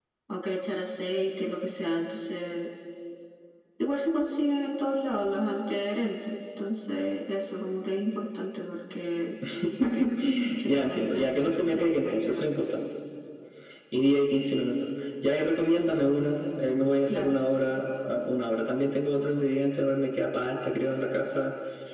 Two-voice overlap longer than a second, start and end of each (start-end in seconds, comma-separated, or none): 10.6-12.4